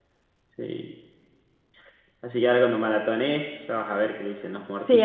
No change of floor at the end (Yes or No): No